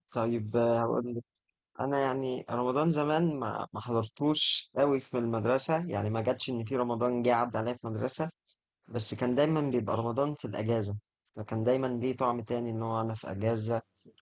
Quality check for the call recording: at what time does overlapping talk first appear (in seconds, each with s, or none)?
none